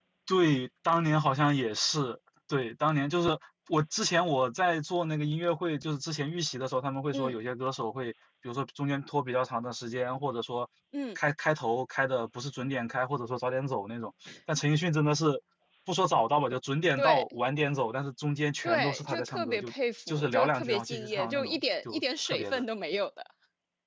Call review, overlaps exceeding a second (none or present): present